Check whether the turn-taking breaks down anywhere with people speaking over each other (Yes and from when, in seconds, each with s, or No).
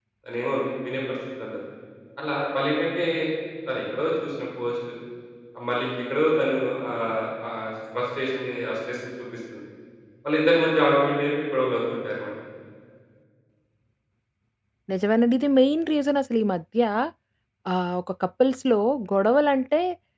No